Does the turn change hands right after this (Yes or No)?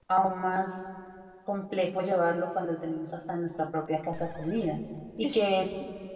No